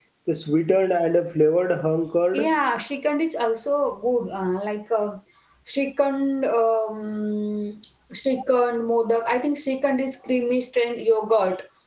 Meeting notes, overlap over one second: none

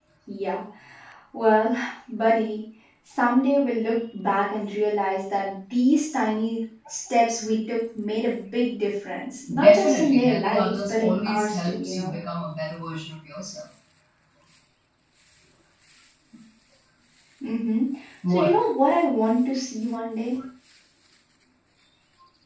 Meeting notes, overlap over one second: present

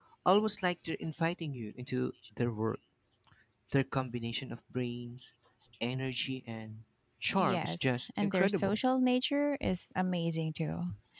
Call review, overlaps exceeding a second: present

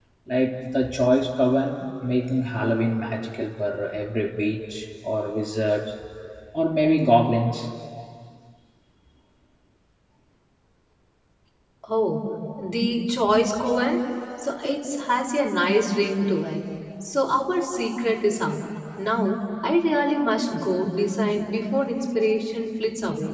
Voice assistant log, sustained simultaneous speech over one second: none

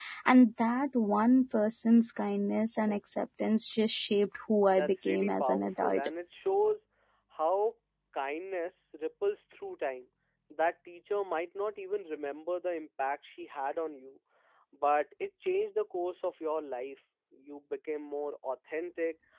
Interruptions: present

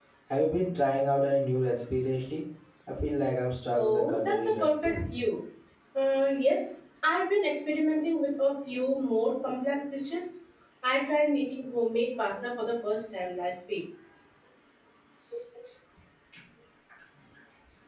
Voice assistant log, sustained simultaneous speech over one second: present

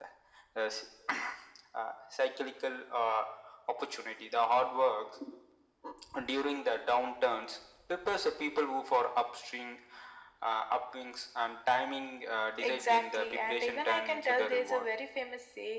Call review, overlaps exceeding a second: present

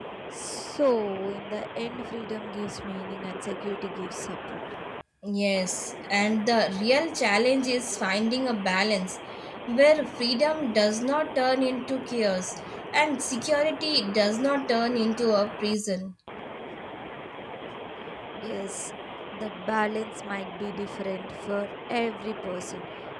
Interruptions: none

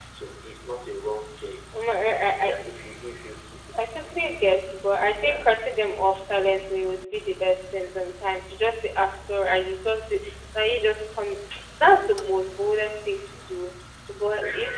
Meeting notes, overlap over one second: none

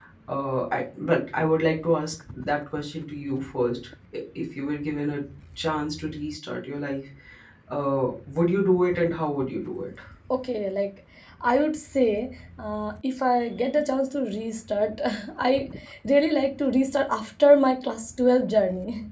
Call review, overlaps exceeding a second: none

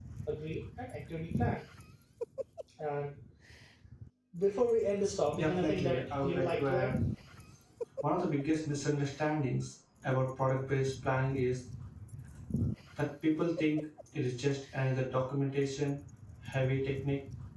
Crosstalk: present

